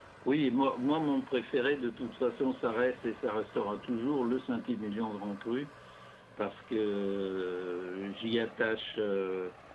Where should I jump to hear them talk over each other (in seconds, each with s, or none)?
none